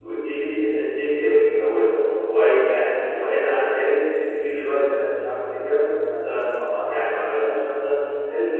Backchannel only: Yes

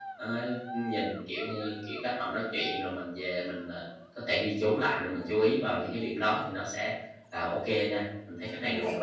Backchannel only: No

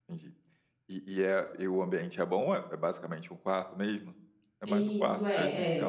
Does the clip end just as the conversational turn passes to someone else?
Yes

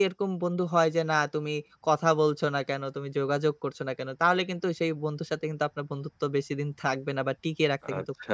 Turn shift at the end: Yes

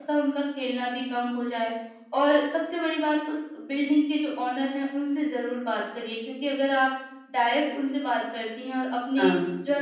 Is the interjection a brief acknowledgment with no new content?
Yes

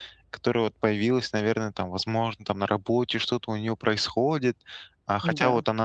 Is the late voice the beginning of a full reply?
No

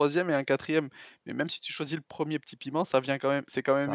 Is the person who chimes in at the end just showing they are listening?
Yes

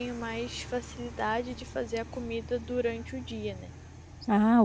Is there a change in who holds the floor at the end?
Yes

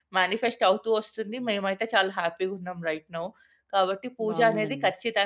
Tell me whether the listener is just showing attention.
Yes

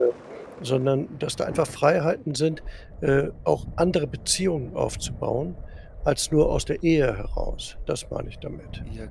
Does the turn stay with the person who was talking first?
No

